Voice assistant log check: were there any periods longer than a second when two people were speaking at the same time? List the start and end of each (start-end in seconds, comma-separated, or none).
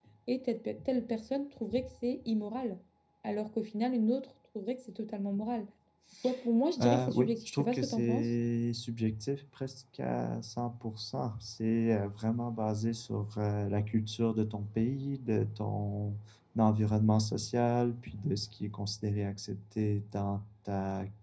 6.8-8.3